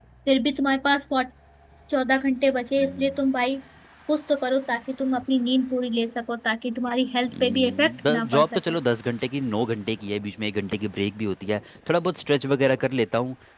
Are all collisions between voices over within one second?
No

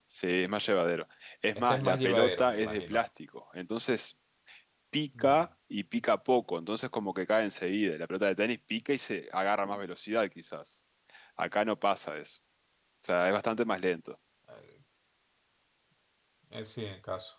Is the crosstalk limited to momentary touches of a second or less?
No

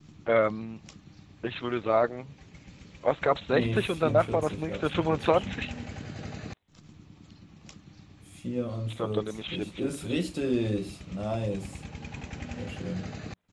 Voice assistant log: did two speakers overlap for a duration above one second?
Yes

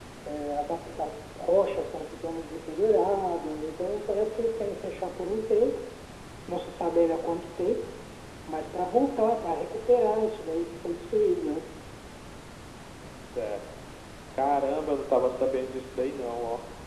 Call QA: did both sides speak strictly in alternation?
Yes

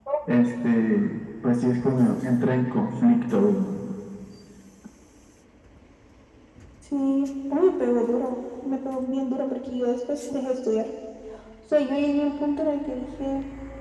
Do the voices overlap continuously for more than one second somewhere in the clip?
No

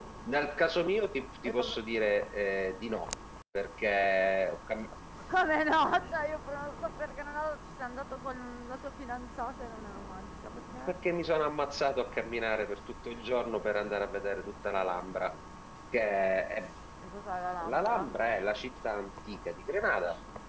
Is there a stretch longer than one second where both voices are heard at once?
No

